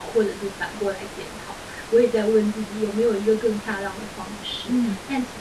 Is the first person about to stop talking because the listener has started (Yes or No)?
No